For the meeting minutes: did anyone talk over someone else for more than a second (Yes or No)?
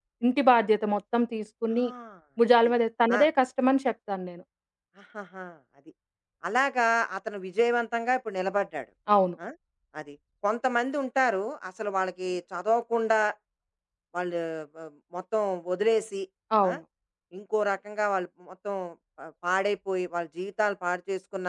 No